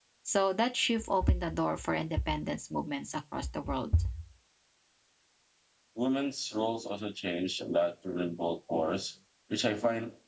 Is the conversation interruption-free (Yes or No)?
Yes